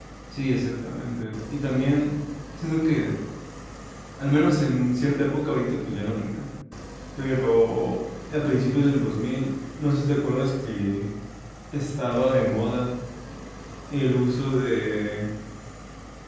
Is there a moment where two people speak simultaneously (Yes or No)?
No